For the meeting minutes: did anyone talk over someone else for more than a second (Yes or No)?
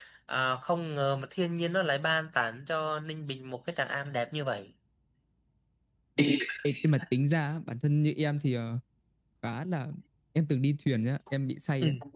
No